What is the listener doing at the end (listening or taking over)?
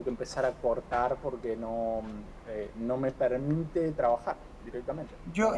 taking over